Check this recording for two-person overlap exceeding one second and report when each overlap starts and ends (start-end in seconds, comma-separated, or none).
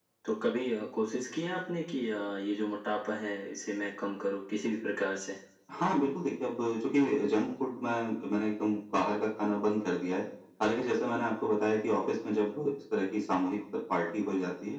none